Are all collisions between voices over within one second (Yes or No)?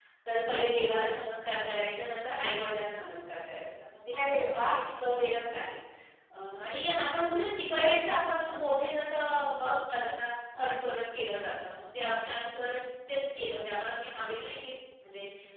Yes